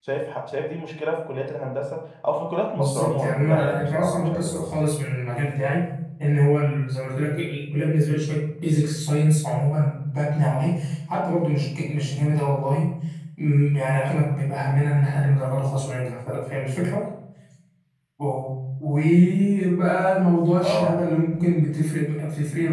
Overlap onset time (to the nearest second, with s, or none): 3 s